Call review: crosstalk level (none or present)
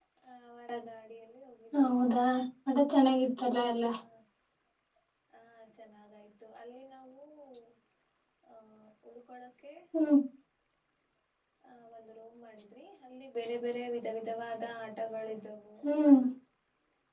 none